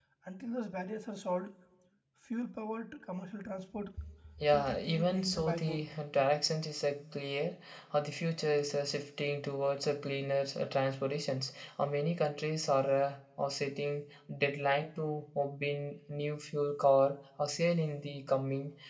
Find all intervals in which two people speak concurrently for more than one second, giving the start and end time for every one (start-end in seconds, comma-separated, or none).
4.5-5.8